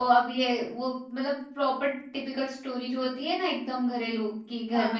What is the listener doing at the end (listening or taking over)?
listening